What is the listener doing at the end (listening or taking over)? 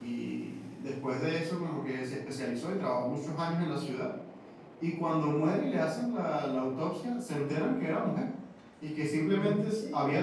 listening